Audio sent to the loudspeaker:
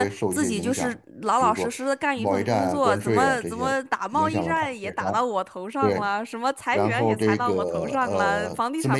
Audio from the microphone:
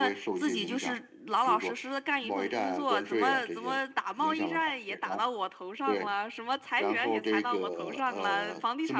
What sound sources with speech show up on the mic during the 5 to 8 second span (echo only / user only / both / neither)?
echo only